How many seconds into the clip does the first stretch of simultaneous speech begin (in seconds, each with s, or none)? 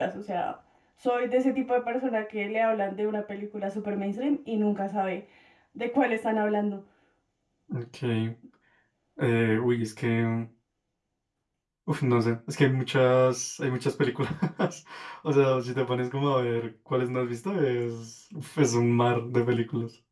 none